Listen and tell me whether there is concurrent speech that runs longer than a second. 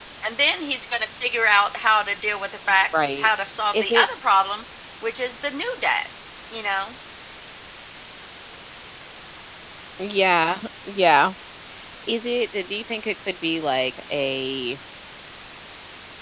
No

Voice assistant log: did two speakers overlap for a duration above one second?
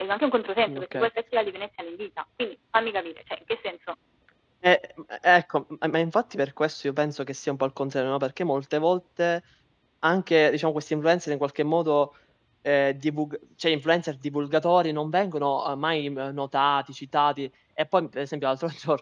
No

